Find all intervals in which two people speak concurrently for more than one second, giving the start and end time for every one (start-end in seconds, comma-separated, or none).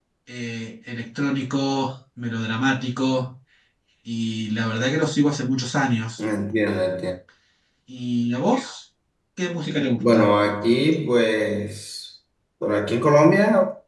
none